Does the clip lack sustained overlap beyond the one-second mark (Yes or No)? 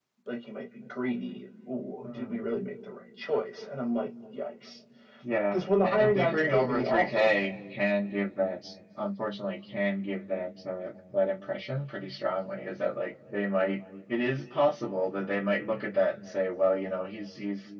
No